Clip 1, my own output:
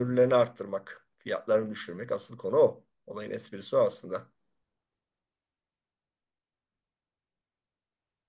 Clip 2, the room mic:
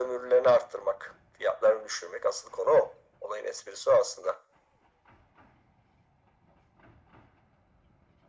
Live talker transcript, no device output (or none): none